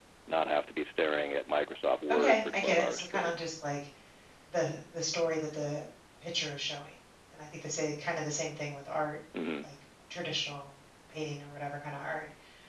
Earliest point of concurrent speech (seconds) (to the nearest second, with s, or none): 2 s